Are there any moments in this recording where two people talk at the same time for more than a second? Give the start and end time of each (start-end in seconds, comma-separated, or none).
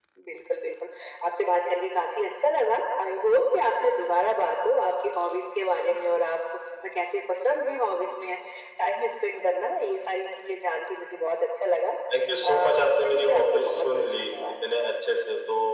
12.4-14.3